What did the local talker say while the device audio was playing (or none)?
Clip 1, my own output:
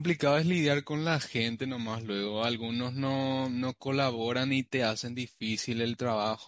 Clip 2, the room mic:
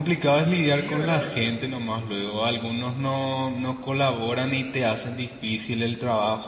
Sí, ¿verdad?